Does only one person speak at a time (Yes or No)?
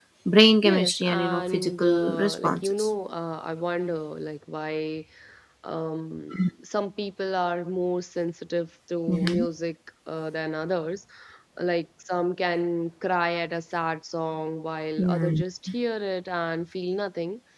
No